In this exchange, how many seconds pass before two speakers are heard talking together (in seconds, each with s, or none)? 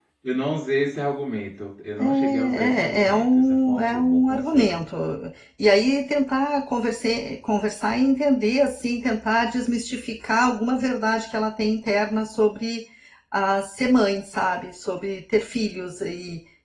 2.0 s